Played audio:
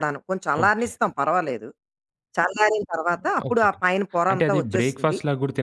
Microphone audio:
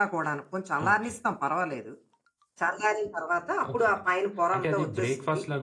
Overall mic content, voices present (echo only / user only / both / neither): echo only